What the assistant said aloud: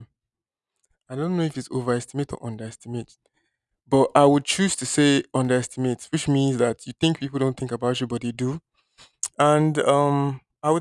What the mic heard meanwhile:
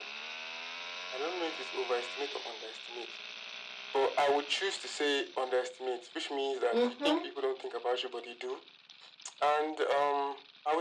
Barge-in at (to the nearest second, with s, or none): 7 s